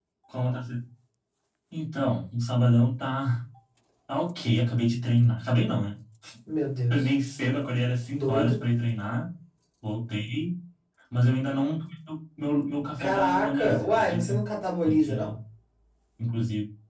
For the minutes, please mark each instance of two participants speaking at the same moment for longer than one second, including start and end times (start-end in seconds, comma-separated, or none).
13.0-14.4